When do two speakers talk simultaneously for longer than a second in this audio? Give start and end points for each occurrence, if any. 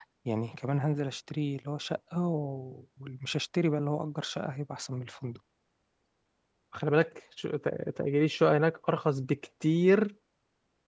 none

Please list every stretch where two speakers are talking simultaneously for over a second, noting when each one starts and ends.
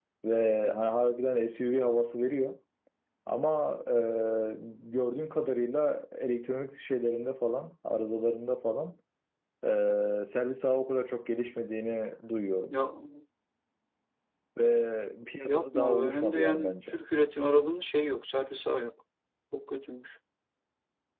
15.5-16.9

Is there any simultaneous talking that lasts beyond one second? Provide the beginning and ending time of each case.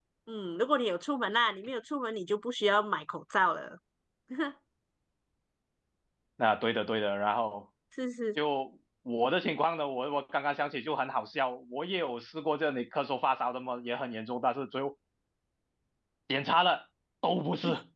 none

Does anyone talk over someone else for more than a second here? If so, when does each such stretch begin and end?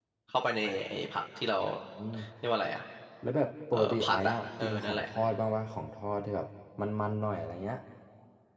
3.7-5.0

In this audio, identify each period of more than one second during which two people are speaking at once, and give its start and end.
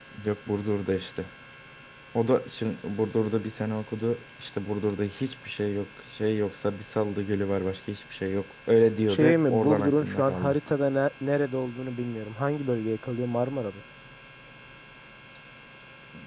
9.1-10.6

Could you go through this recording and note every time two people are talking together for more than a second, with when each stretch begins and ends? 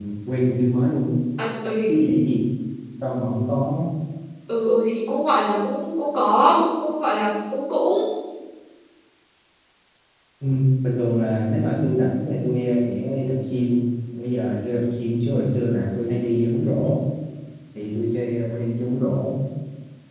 none

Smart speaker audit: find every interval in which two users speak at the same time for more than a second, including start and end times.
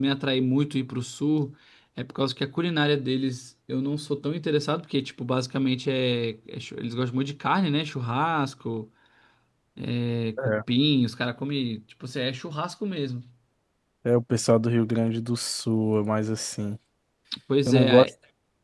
none

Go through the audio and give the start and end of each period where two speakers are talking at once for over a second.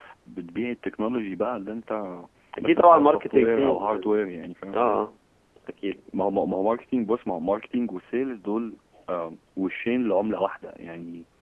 2.6-4.2

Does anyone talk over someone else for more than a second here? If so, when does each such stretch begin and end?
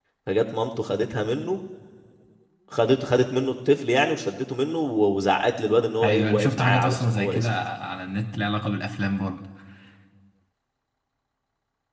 6.0-7.6

